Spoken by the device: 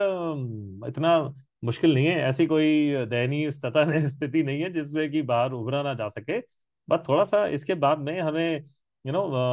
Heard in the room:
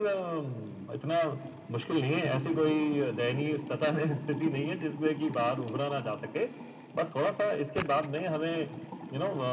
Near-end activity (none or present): none